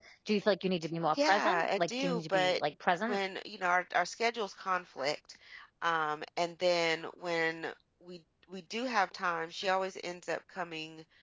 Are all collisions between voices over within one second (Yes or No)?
No